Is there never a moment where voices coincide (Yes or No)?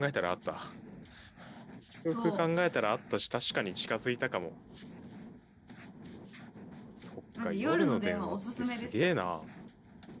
No